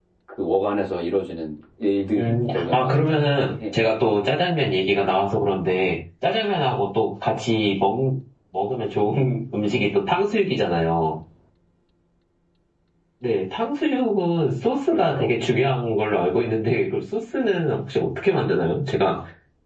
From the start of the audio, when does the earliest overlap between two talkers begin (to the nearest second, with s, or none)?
2 s